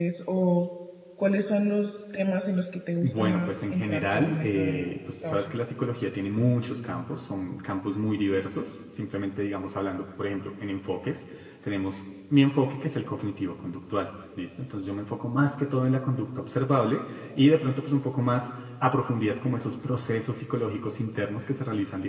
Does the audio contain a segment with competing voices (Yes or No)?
Yes